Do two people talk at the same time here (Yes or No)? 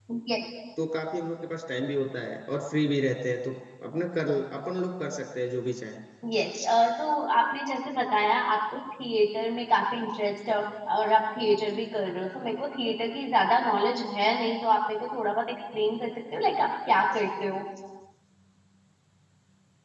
No